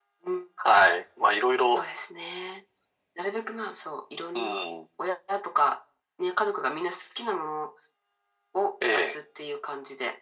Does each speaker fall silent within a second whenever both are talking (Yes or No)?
Yes